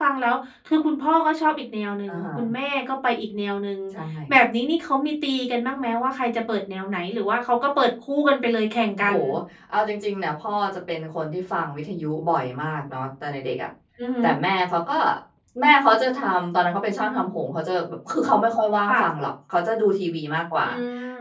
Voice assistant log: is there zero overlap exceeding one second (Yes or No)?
Yes